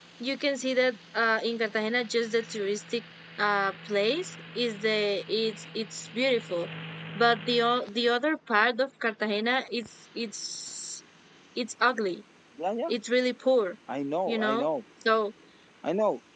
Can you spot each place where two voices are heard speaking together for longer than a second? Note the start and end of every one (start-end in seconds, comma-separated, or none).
none